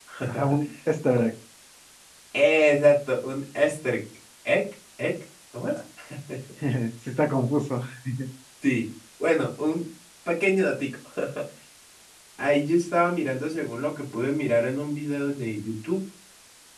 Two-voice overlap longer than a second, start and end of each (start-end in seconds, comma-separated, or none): none